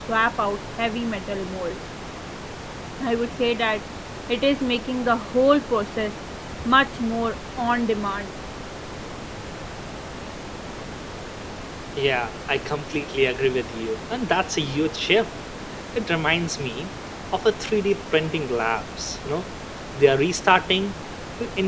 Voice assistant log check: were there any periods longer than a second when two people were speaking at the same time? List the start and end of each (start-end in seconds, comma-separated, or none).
none